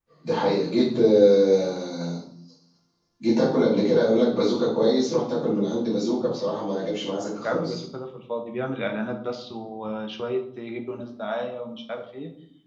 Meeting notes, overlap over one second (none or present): none